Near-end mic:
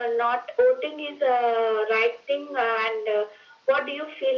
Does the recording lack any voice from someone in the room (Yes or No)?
Yes